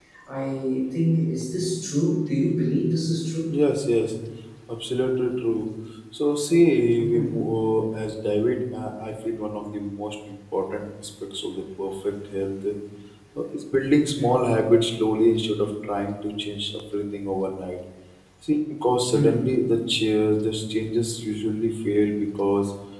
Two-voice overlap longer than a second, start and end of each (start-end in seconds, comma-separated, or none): none